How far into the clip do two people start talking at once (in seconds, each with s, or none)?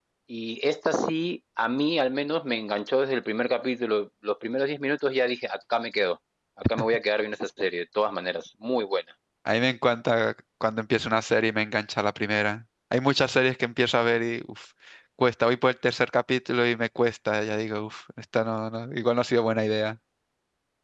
none